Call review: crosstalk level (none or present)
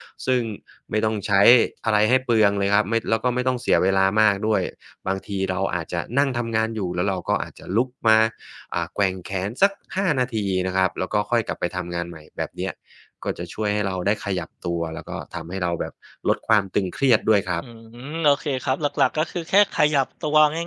none